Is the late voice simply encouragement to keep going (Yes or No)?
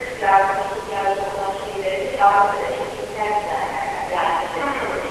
Yes